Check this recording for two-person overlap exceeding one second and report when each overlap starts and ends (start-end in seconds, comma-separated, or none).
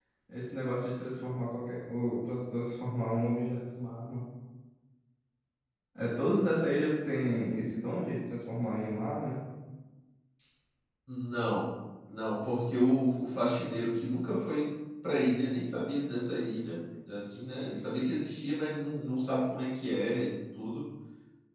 none